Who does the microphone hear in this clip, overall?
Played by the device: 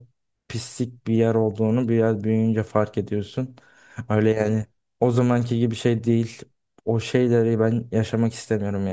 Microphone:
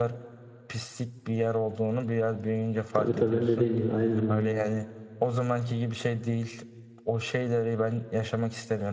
both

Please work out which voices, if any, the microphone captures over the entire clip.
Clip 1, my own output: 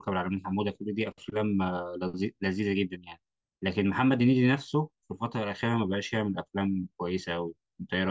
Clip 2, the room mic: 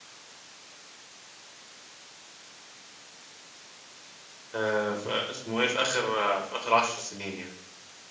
user only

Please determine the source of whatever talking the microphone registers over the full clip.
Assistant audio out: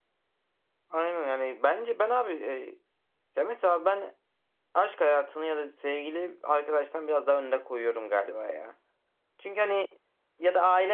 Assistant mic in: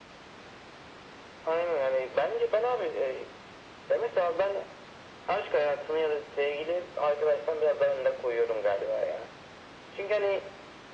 echo only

